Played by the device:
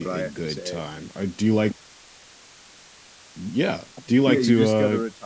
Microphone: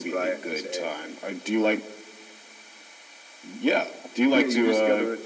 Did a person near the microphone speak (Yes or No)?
No